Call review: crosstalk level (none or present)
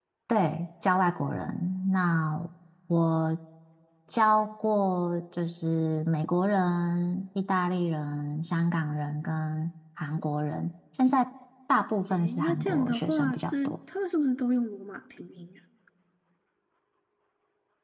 present